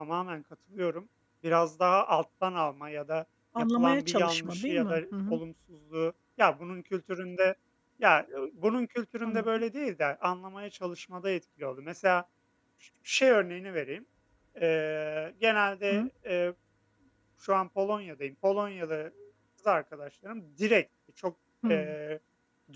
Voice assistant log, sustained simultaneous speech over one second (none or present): present